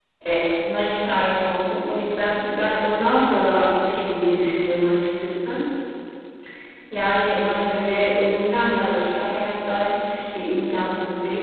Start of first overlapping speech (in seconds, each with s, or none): none